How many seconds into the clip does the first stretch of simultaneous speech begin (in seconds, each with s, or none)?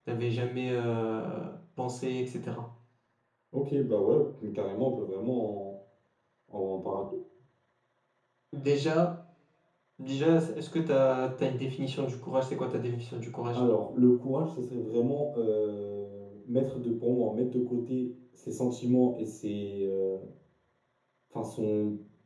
none